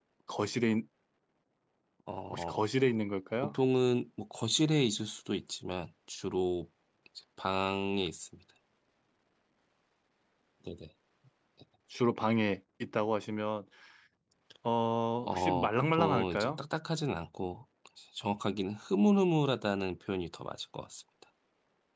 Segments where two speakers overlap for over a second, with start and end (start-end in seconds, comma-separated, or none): 15.3-16.6